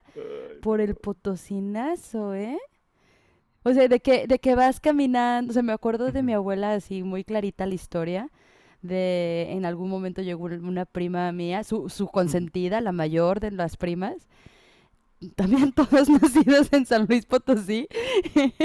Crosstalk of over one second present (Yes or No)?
No